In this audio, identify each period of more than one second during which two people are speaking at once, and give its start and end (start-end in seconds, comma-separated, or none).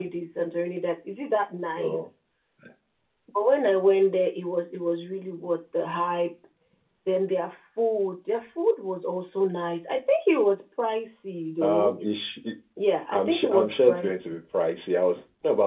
13.1-14.4